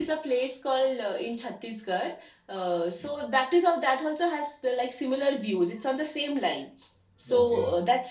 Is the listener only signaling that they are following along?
Yes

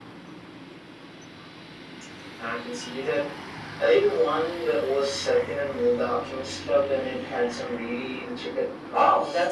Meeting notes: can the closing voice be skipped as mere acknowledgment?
No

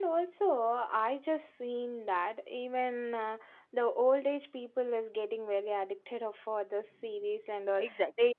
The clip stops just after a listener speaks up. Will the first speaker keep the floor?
No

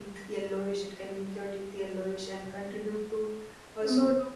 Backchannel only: Yes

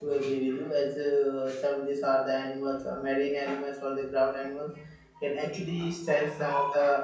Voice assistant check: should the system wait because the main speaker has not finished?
Yes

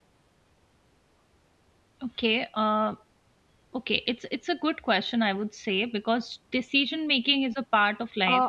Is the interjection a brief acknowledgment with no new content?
No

